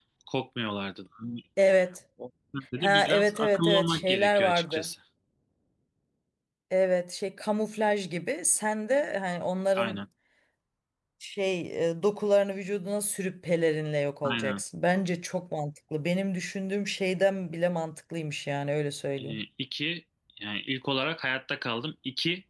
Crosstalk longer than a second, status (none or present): present